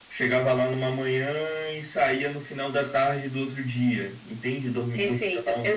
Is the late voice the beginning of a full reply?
Yes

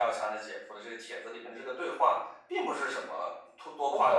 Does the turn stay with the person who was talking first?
No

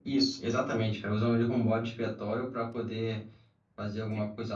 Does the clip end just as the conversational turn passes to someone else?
No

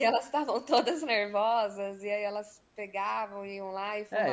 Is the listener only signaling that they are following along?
No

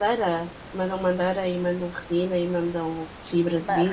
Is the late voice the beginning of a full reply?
Yes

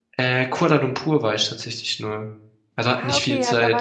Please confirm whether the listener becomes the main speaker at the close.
Yes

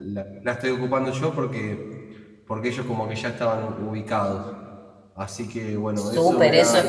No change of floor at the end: No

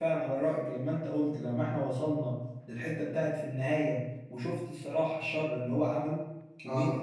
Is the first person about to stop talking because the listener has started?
Yes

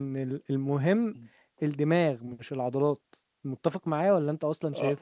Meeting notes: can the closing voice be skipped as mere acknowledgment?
No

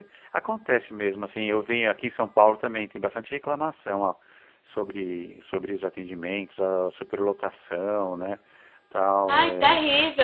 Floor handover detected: Yes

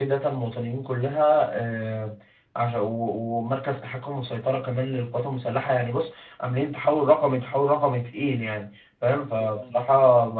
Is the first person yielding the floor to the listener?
No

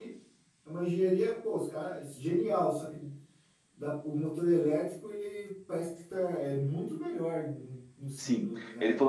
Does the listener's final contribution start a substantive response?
Yes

